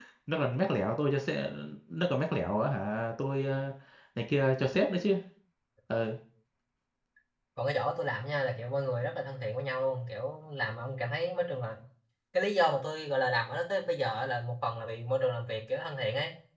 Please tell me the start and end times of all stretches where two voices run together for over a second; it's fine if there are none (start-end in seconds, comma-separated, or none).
none